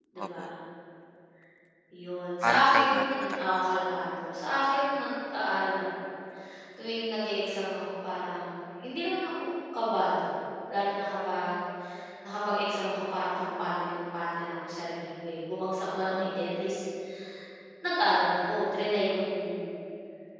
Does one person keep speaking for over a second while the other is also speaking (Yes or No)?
Yes